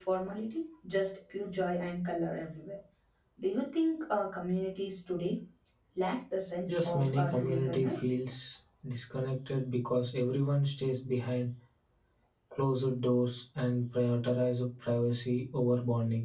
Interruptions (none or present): present